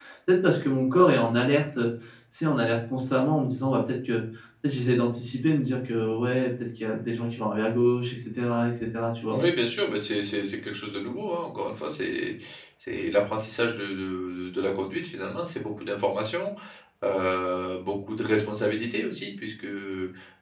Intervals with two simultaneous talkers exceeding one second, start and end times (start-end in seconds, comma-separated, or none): none